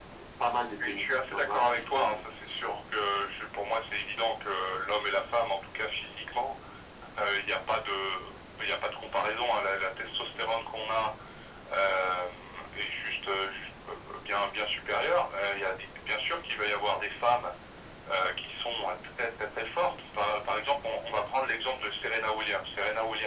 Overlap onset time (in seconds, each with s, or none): 0.8 s